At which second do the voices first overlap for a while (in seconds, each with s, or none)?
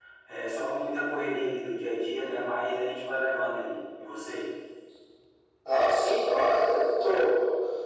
none